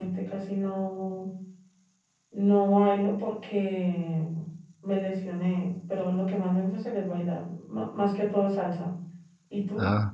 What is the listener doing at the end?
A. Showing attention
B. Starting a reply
B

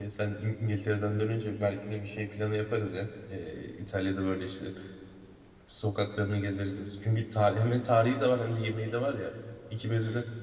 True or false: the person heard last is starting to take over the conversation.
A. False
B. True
A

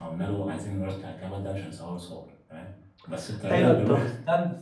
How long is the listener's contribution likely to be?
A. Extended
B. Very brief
A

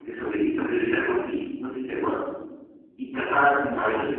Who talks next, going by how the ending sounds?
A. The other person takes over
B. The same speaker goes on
B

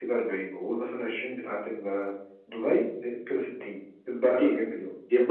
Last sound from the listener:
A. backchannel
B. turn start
B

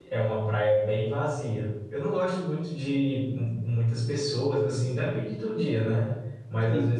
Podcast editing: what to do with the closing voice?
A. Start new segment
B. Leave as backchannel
B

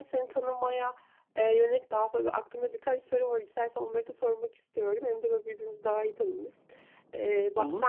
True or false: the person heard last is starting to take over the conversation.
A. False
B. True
A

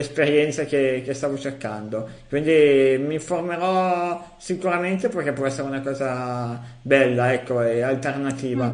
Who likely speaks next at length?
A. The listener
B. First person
B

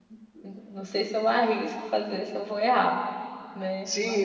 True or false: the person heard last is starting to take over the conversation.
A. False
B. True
B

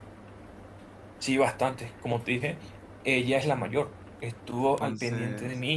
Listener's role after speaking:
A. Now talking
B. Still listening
B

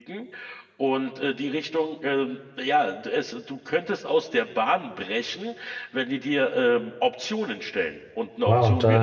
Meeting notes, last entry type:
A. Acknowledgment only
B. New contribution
B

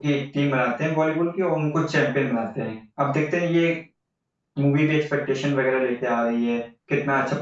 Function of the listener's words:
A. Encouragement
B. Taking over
A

